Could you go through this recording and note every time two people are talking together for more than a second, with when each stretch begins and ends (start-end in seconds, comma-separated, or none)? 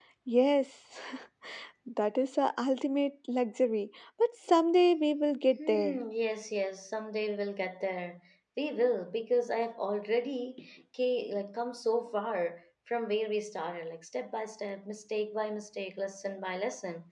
none